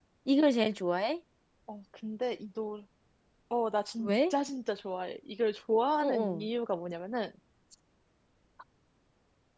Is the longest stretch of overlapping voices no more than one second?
Yes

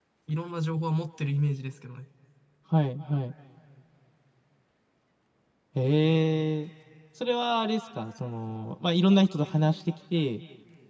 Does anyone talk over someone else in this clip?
No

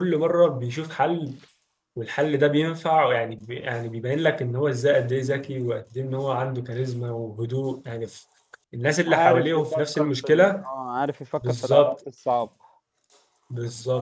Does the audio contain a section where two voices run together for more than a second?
Yes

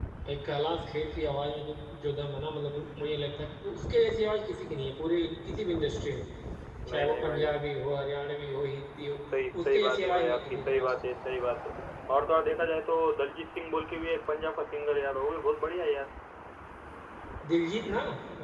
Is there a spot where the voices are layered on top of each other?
Yes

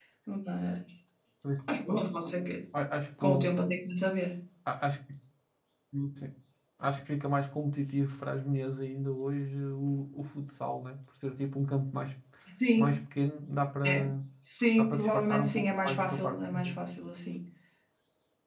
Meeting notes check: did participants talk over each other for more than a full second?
Yes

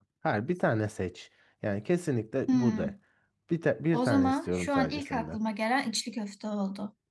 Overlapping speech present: Yes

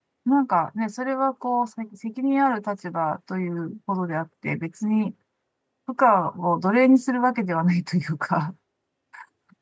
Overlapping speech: No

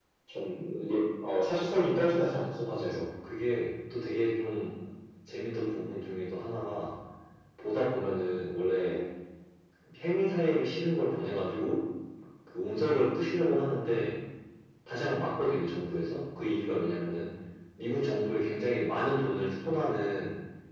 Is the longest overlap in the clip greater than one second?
No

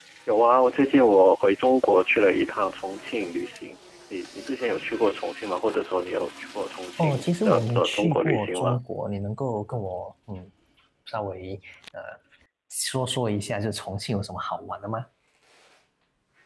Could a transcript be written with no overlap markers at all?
No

